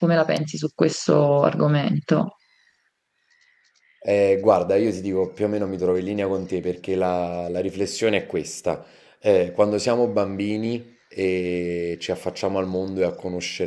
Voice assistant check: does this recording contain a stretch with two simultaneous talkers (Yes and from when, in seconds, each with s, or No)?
No